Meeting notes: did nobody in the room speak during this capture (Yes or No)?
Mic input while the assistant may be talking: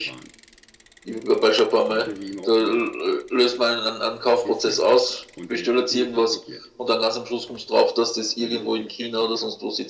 No